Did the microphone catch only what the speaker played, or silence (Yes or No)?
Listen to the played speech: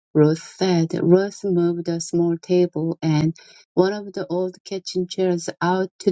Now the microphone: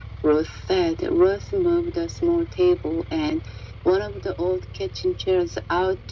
Yes